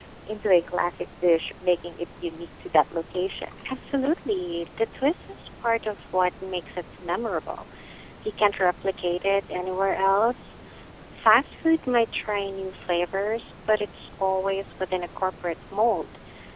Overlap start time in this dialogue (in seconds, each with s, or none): none